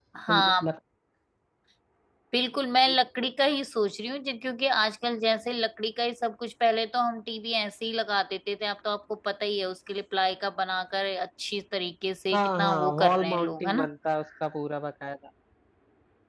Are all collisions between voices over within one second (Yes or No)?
No